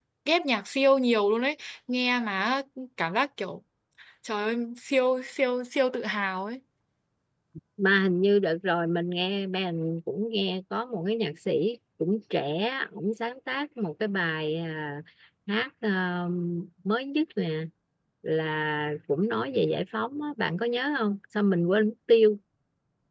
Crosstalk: none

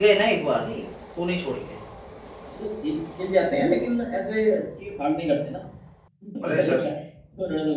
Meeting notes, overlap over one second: none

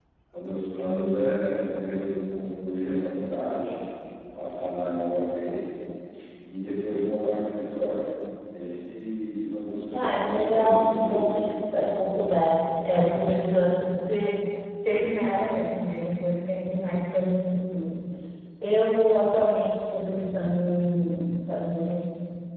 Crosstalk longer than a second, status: present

